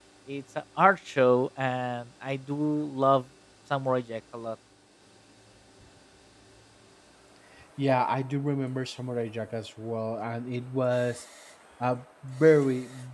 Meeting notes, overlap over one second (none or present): none